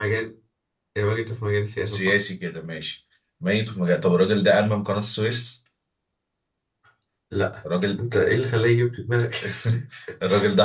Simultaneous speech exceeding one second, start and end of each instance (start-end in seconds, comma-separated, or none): none